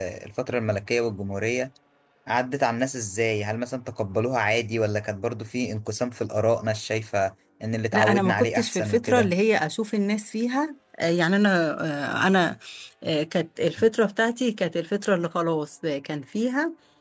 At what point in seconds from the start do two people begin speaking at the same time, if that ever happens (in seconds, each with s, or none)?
7.9 s